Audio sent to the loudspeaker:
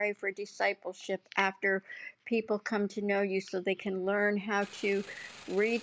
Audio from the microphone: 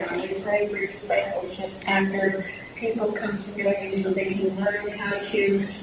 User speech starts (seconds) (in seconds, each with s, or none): none